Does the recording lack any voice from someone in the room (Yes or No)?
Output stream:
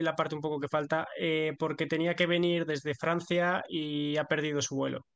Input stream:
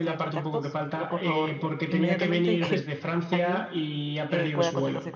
No